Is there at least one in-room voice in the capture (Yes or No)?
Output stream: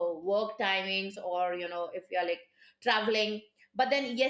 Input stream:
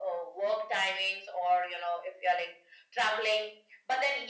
No